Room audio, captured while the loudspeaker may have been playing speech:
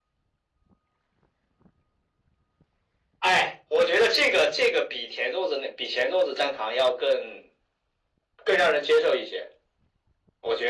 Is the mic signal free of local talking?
Yes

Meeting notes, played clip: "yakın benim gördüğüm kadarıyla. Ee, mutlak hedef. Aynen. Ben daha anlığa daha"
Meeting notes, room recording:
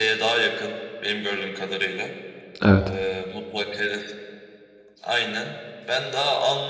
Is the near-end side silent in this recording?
No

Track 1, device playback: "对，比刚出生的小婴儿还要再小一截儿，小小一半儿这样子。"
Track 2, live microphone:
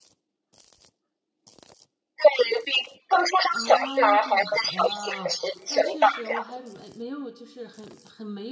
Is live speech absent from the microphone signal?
No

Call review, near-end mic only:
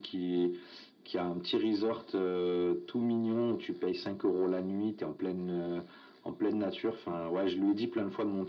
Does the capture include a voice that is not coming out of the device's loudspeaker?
No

